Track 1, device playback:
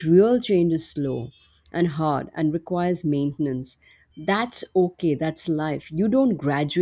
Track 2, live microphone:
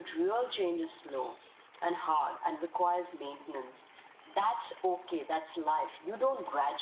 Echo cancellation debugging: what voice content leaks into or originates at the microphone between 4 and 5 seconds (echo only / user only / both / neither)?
echo only